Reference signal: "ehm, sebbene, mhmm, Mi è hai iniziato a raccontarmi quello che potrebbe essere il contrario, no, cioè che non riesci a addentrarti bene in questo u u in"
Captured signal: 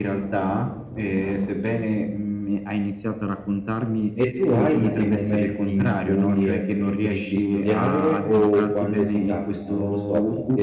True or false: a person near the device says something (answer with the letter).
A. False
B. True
B